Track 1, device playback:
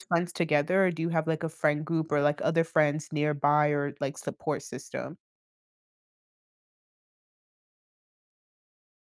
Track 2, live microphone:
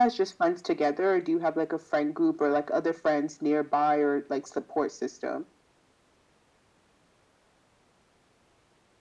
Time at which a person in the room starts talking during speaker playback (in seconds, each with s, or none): none